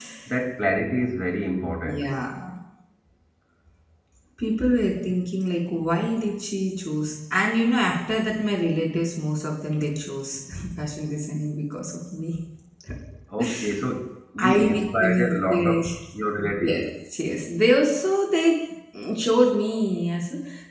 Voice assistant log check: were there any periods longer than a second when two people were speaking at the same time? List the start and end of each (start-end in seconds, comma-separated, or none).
14.4-15.8